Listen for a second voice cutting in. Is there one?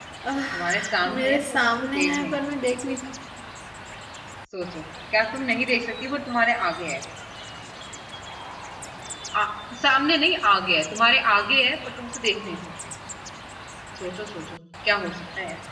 Yes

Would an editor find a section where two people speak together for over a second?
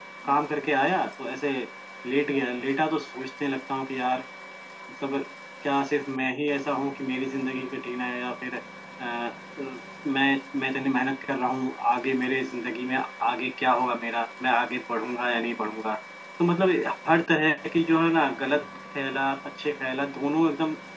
No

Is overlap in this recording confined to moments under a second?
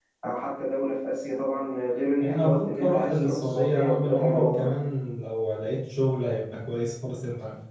No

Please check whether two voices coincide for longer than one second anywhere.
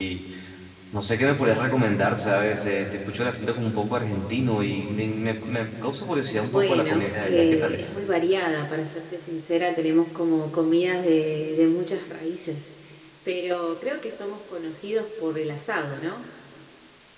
Yes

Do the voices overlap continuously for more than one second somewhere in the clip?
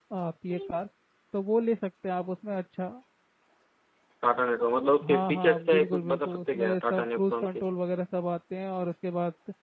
Yes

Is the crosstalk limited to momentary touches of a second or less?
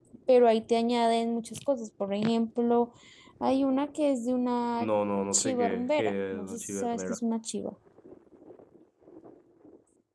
No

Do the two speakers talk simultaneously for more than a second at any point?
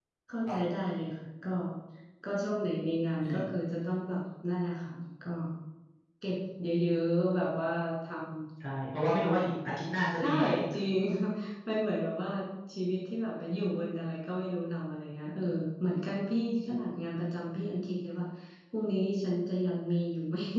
No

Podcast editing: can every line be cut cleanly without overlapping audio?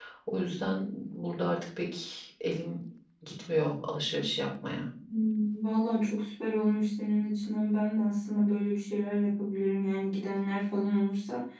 Yes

